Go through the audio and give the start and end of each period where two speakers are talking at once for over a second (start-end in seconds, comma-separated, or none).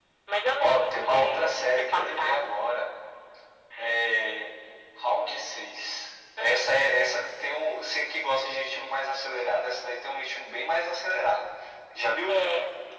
0.6-2.5